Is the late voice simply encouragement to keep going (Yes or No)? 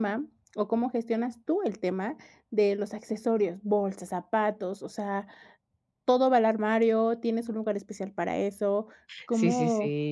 No